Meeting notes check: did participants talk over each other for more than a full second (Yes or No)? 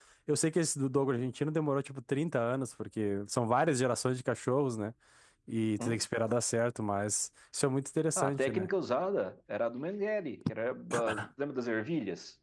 No